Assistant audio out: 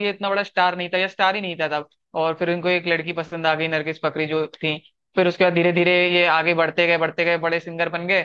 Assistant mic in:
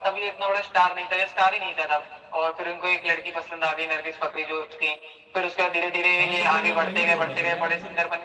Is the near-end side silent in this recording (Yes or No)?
No